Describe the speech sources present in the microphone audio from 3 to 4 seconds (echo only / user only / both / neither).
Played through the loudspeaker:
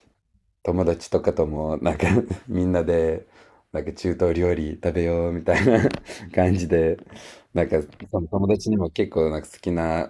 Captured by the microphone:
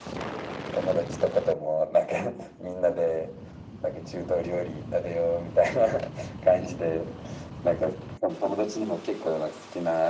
echo only